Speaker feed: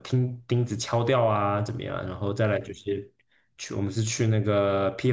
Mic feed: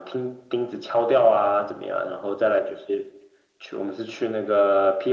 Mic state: echo only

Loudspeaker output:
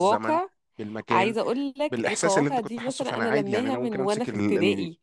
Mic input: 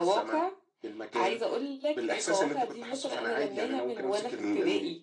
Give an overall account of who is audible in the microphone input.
echo only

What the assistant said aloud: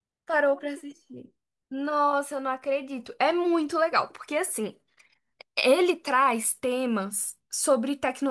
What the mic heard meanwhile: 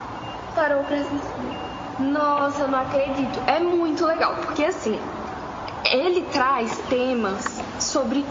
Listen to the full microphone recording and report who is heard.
echo only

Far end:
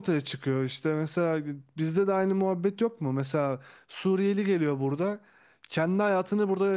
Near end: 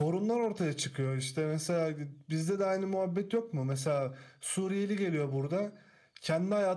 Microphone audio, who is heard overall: echo only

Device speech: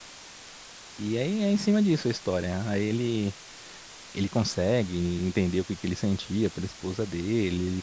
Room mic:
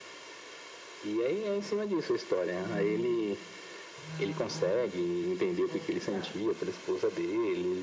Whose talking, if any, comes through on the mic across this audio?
both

